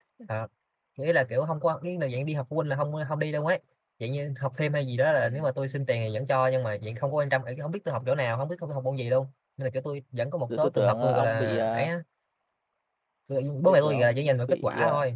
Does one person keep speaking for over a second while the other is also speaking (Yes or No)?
Yes